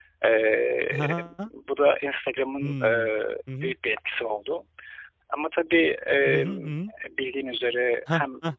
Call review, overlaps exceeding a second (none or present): none